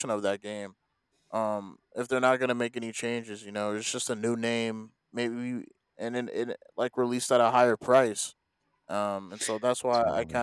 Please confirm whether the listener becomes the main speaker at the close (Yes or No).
No